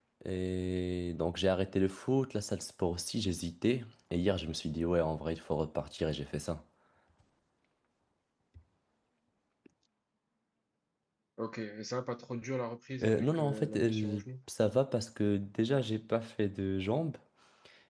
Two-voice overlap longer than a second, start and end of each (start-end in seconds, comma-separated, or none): 13.0-14.2